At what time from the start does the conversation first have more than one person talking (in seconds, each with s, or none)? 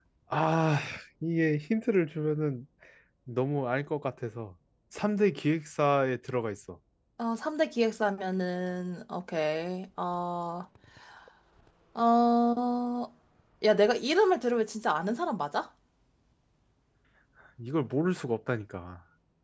none